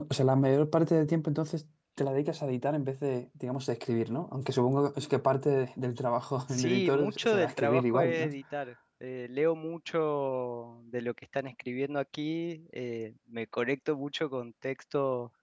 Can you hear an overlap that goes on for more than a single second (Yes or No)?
Yes